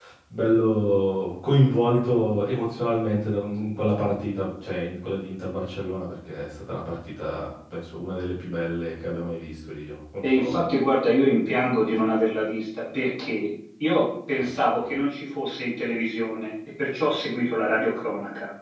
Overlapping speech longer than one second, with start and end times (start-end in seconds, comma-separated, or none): none